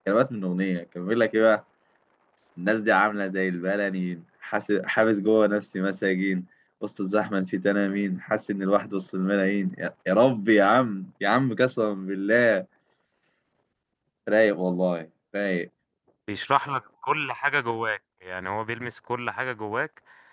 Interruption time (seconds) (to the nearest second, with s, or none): none